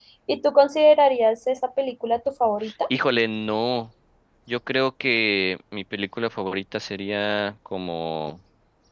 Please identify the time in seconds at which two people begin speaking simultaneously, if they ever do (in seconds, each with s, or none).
none